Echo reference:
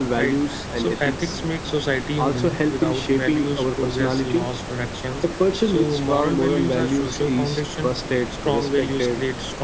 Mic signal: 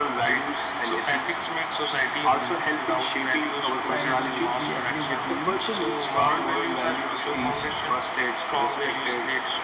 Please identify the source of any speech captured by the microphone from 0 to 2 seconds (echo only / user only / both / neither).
echo only